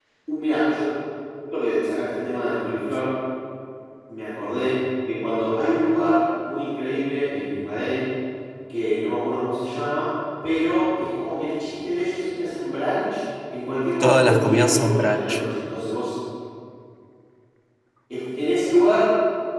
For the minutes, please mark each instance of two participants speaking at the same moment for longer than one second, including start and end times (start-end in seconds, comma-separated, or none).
14.0-15.4